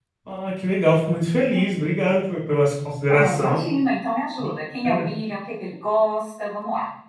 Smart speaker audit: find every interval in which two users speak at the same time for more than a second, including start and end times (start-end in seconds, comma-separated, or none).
none